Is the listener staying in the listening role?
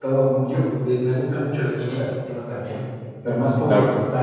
No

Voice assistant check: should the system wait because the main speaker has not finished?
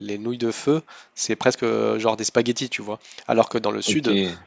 Yes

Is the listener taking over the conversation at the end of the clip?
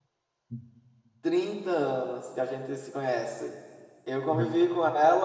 No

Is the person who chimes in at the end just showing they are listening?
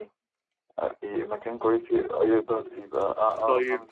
No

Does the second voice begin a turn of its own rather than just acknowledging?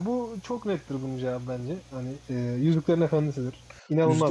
Yes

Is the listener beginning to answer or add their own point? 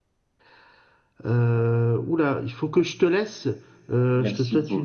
No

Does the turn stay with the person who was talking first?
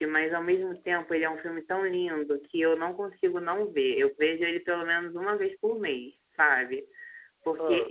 Yes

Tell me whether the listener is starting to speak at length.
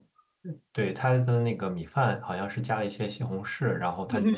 No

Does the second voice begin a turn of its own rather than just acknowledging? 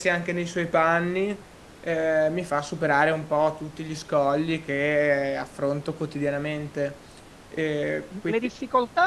Yes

